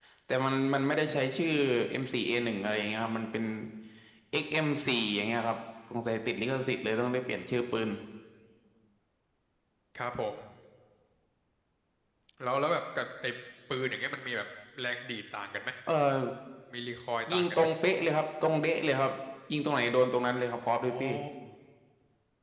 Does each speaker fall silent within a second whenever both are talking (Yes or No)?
Yes